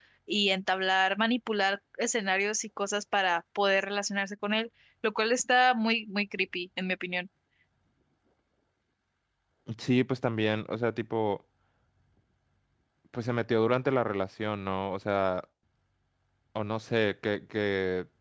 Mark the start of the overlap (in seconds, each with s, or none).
none